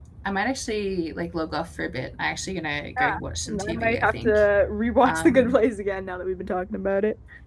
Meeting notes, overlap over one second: present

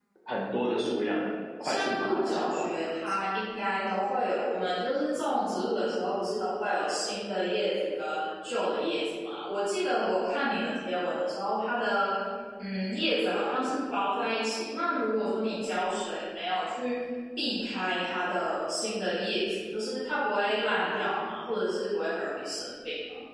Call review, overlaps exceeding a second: present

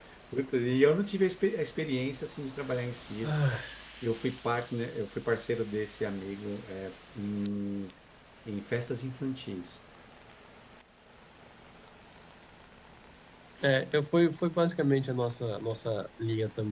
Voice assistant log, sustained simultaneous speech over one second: none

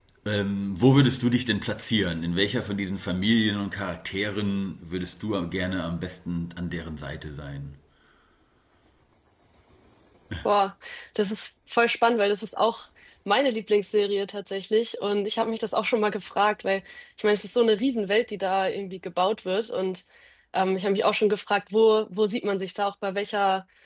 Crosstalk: none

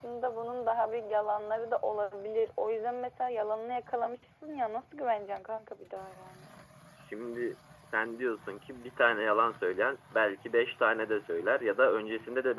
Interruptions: none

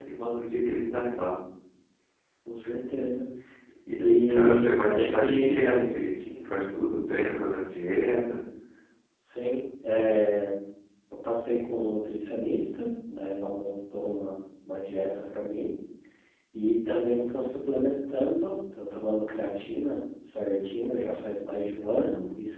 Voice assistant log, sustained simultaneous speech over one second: present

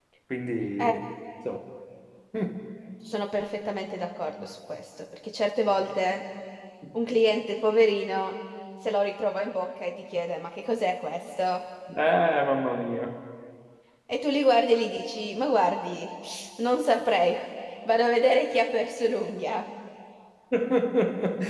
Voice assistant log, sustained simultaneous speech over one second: none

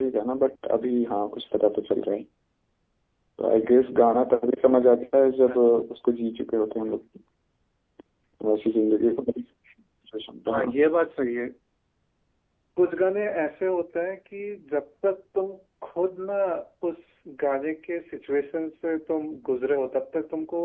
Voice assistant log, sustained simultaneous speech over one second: none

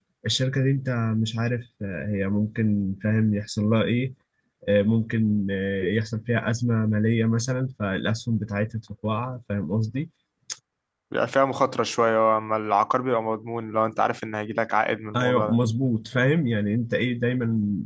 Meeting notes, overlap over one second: none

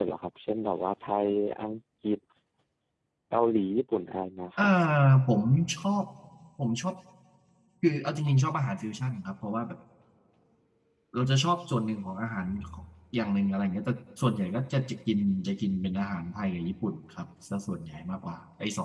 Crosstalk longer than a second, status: none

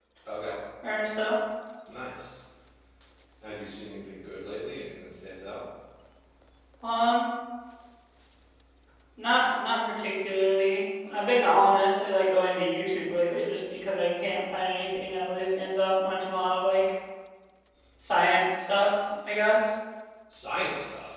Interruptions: none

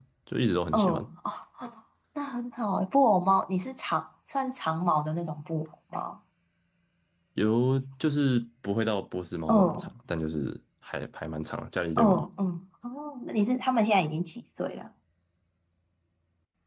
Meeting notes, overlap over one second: none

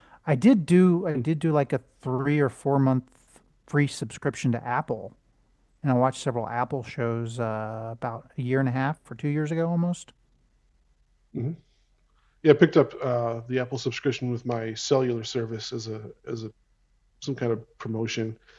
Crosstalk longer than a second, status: none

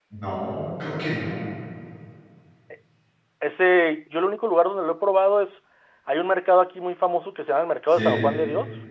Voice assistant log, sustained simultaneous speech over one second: none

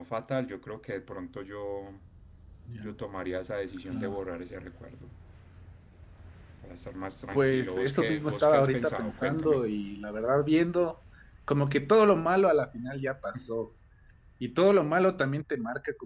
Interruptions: present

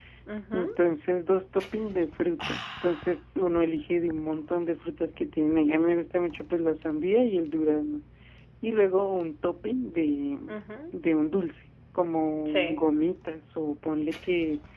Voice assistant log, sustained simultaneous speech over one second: none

